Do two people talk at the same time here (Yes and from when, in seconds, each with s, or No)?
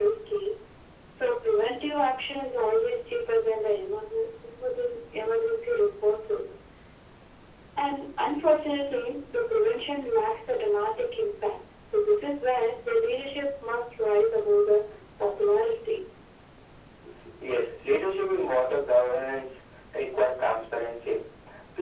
No